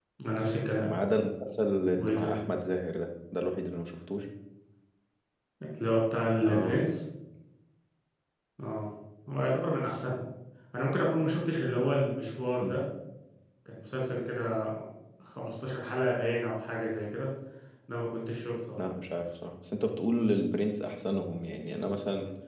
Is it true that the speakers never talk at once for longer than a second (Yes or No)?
Yes